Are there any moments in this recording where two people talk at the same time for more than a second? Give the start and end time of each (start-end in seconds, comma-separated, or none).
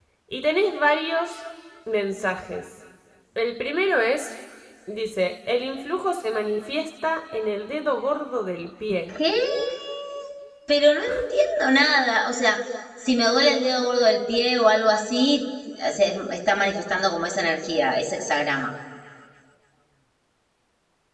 none